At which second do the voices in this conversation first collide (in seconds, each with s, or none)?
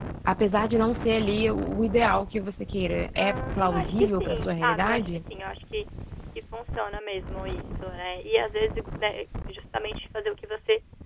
3.2 s